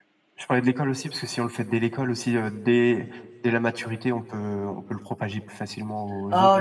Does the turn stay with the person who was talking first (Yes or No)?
No